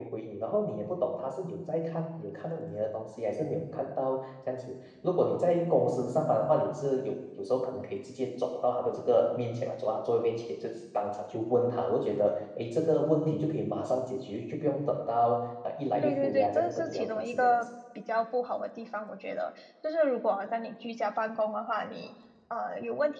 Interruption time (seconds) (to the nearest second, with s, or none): 16 s